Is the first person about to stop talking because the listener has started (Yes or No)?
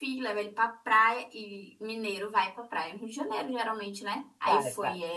No